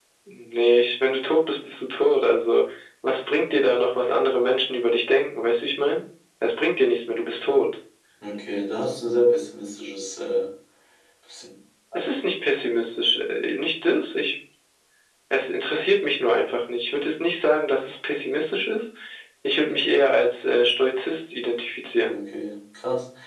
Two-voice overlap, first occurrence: none

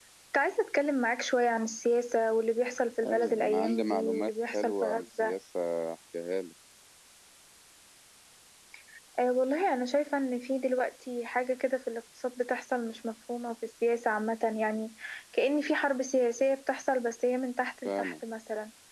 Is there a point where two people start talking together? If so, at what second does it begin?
3 s

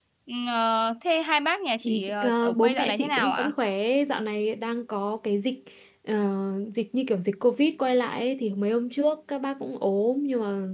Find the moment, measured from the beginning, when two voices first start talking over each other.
2 s

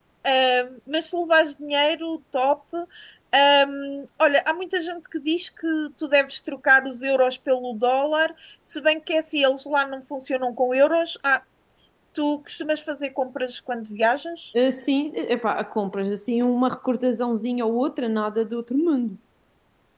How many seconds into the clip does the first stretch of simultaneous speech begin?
none

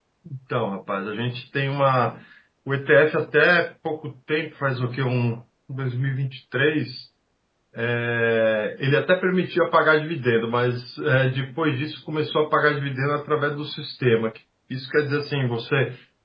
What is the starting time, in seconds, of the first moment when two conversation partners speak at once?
none

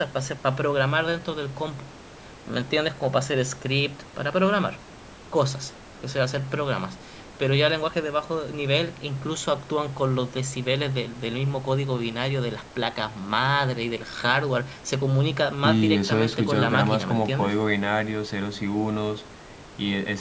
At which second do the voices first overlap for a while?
16 s

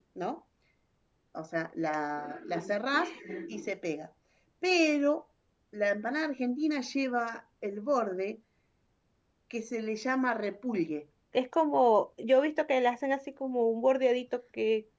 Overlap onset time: none

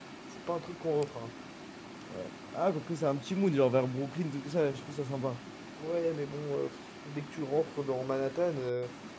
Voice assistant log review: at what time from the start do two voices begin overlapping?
none

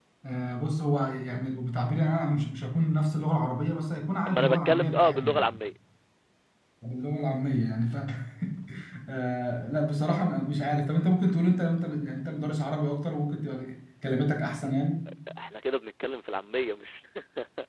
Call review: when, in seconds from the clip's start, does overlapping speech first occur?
4 s

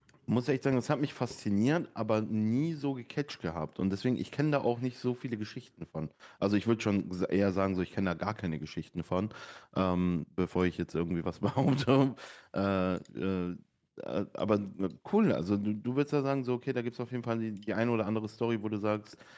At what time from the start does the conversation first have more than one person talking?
none

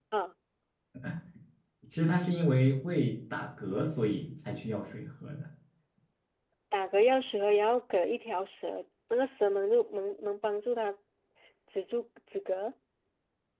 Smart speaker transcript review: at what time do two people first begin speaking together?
none

